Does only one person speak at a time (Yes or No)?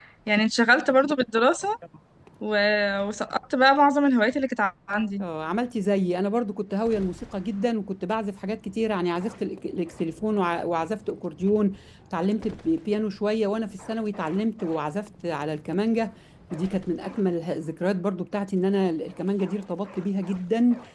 Yes